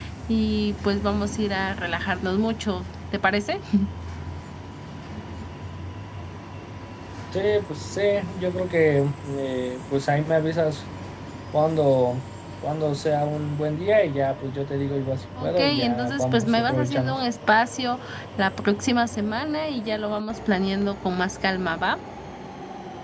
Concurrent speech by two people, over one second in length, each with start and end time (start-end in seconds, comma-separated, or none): 15.4-17.2